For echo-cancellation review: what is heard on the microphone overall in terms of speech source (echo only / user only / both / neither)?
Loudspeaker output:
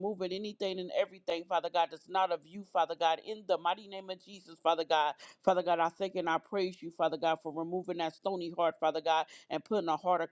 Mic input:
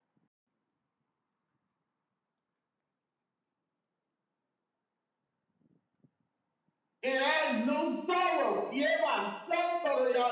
user only